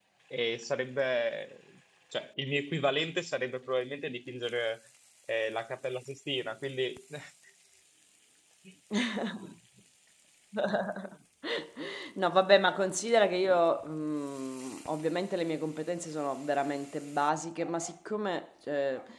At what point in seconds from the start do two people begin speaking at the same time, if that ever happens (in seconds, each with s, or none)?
none